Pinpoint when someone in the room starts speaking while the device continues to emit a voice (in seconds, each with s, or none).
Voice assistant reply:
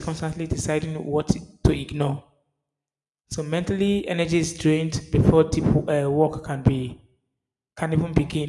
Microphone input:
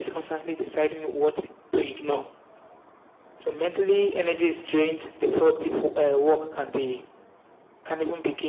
none